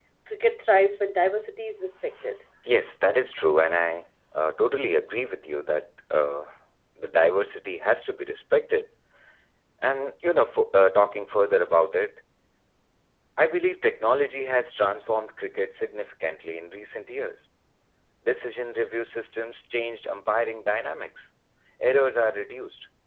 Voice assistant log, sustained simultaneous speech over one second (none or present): none